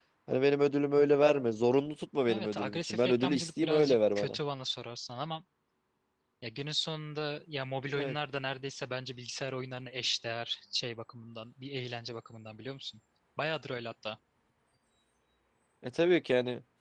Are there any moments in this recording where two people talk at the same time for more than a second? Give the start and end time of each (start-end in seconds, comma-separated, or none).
2.3-4.4